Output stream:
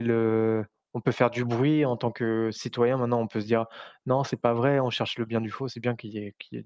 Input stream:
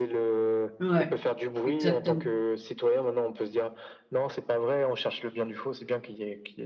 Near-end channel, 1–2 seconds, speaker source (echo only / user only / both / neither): both